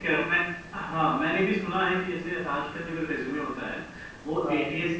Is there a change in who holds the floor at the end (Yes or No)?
No